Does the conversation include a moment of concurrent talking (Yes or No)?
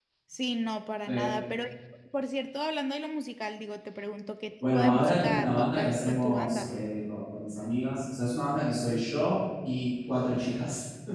Yes